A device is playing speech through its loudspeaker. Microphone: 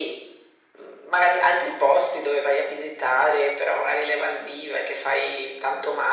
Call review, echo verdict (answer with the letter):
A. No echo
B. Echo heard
B